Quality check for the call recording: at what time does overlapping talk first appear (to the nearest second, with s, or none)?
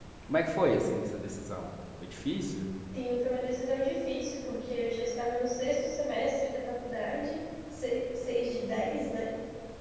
none